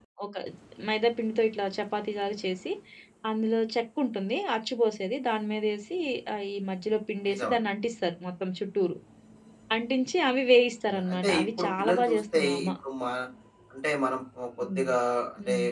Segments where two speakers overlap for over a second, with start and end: 10.9-12.7

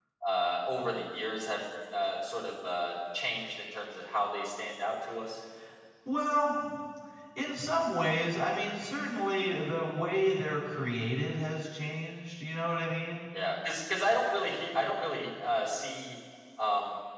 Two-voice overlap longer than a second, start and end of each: none

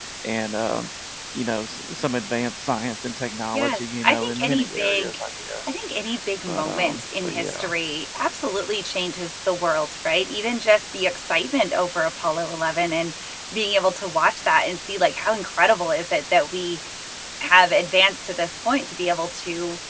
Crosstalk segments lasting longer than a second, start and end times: 3.5-5.2, 6.5-7.7

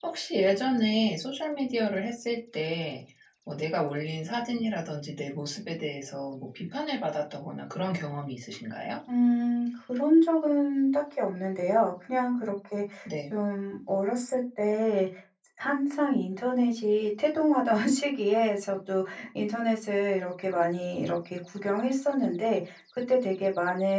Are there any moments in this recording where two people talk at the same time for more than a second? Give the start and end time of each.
none

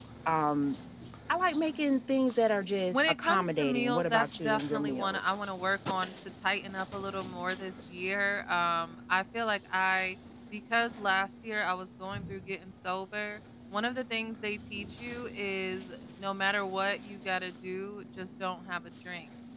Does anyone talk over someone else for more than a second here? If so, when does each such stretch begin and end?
2.9-5.2

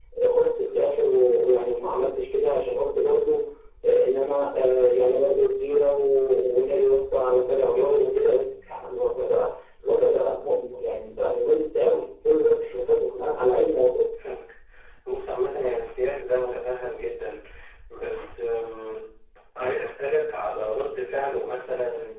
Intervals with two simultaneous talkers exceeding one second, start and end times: none

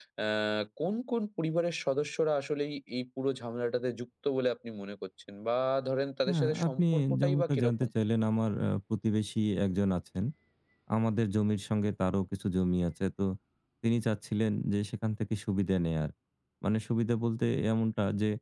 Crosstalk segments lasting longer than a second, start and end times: 6.3-7.7

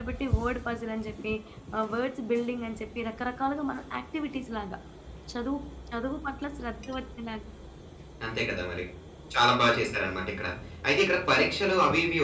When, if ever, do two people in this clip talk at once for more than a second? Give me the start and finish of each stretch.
none

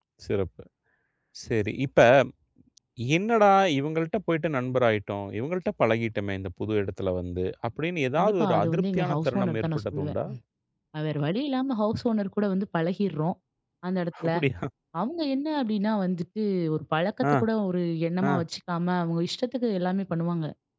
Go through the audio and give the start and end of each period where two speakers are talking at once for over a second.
8.2-10.1

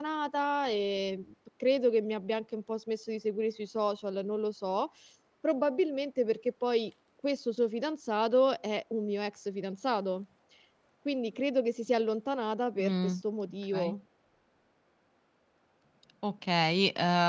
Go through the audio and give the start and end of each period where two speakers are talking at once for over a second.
none

